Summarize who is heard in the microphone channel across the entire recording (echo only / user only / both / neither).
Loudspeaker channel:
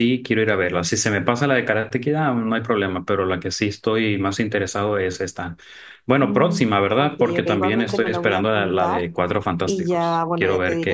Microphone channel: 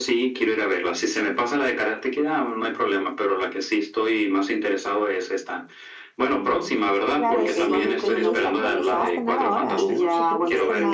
both